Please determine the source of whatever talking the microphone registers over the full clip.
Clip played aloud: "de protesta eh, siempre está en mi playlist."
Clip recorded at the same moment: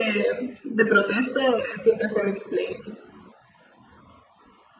echo only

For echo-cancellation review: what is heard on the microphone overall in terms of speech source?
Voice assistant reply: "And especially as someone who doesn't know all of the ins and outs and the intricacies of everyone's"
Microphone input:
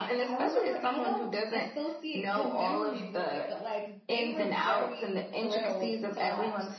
both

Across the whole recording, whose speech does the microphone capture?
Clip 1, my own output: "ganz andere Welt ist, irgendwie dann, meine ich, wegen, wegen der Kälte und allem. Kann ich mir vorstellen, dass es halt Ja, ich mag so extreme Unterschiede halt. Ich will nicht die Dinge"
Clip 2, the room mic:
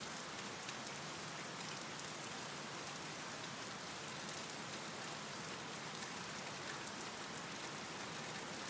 neither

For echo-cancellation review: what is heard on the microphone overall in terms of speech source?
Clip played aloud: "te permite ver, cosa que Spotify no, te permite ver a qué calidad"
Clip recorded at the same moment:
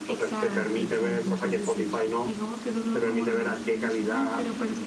both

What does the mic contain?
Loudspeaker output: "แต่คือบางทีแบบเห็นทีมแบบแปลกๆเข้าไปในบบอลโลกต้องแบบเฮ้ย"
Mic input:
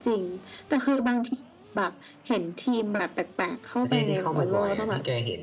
both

